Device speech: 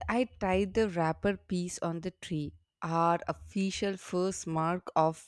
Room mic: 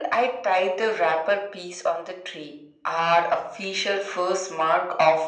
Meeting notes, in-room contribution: none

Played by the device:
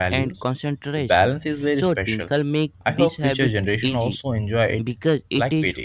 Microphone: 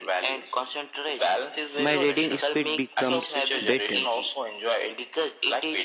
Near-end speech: present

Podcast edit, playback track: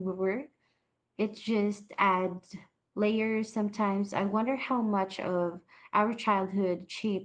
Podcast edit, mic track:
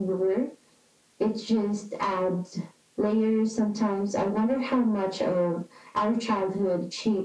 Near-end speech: none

